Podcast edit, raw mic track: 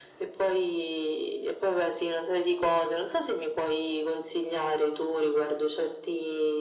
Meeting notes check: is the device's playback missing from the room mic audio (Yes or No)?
No